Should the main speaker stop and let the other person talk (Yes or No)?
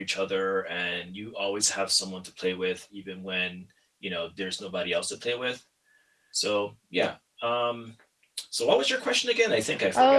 Yes